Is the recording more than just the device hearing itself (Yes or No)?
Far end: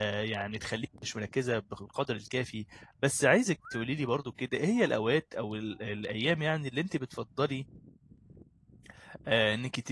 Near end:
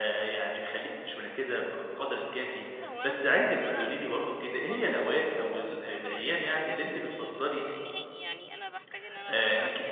Yes